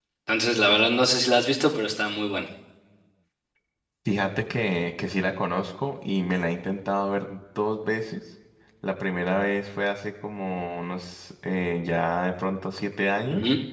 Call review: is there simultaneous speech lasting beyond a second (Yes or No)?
No